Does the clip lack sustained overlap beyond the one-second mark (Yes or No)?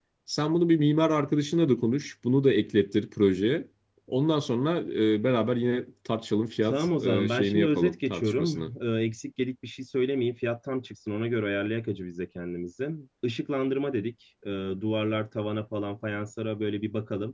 No